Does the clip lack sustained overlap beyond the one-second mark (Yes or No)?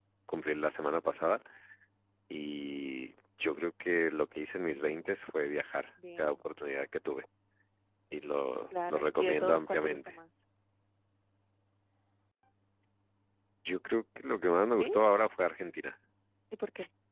No